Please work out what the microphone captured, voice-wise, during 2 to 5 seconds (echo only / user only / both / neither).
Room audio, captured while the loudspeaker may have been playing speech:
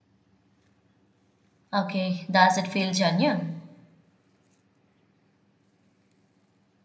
user only